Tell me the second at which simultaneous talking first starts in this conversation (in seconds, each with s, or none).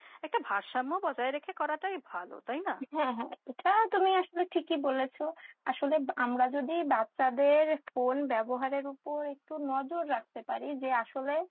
none